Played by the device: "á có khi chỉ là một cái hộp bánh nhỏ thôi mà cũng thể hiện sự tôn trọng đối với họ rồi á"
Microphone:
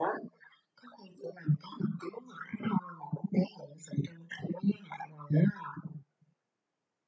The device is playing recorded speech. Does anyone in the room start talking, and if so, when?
none

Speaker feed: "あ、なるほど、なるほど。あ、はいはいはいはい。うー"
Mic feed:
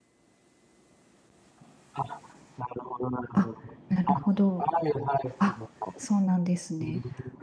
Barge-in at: 3 s

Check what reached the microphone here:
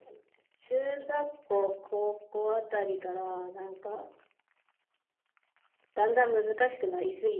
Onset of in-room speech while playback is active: none

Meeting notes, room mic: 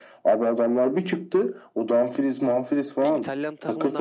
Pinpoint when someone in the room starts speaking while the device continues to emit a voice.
3 s

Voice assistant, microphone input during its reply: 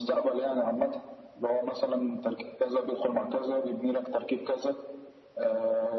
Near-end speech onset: none

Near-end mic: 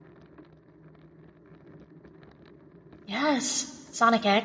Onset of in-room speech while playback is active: 3 s

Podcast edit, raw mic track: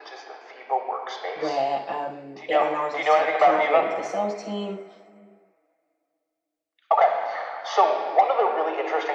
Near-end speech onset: 1 s

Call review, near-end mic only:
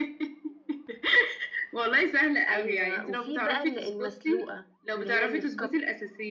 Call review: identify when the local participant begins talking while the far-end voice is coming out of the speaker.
2 s

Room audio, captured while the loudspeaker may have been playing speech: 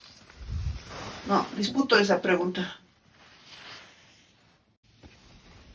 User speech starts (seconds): 1 s

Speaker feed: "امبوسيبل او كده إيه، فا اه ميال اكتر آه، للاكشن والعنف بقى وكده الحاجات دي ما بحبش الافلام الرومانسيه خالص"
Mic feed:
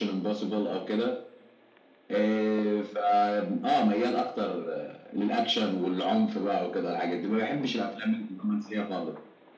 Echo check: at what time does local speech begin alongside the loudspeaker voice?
none

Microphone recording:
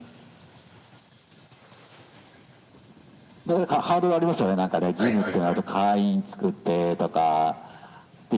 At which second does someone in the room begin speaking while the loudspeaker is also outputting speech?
5 s

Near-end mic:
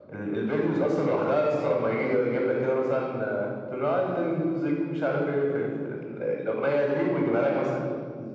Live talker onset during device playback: none

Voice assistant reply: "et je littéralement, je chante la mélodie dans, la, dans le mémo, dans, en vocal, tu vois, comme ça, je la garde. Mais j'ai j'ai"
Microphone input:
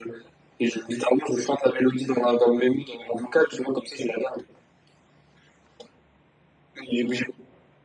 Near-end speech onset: none

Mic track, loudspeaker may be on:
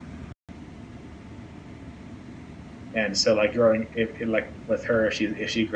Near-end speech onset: 3 s

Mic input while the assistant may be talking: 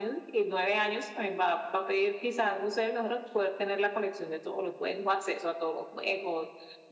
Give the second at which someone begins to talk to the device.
none

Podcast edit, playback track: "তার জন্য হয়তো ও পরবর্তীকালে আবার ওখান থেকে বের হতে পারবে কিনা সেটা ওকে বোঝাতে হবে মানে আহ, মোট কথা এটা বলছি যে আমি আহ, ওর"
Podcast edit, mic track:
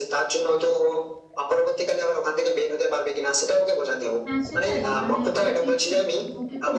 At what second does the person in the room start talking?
4 s

